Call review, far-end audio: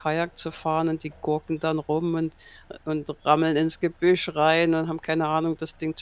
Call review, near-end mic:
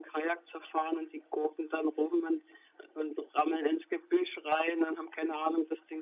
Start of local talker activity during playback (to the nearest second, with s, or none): none